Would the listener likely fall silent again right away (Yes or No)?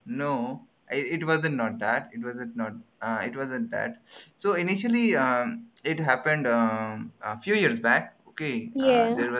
Yes